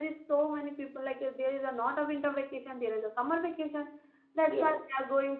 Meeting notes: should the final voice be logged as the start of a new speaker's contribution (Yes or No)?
No